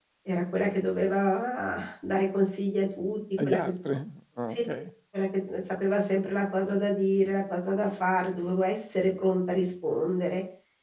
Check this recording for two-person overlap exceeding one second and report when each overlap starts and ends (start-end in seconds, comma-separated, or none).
none